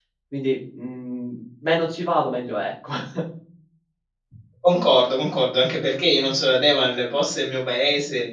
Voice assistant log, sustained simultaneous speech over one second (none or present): none